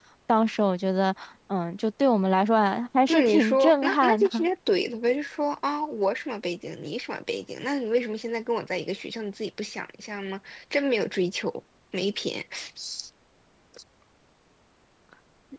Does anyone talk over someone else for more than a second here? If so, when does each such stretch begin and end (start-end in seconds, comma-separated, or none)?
3.1-4.3